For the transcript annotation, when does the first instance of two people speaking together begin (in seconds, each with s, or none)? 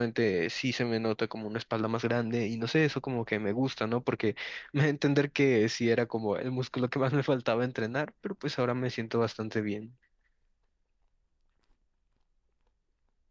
none